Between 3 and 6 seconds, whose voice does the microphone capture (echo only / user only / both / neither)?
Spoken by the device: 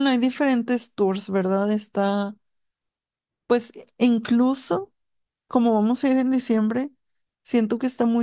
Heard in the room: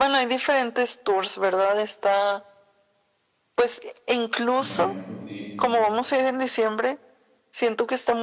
both